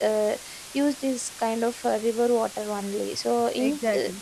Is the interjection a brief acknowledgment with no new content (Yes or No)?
Yes